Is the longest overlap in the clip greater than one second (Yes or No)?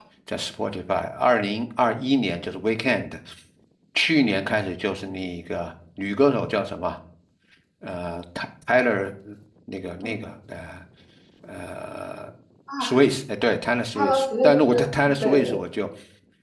Yes